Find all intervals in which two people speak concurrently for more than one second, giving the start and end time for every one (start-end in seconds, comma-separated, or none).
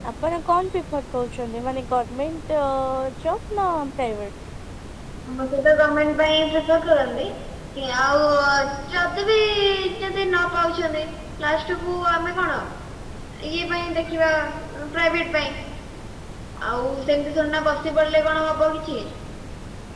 none